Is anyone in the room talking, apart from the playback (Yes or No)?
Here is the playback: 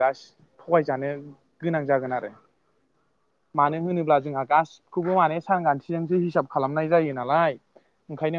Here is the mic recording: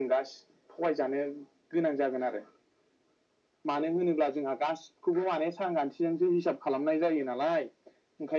No